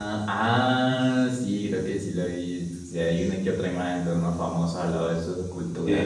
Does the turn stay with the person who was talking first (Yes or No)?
No